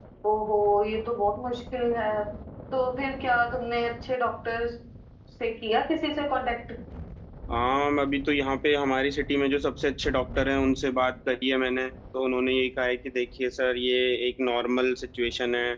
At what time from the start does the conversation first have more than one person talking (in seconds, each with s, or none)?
none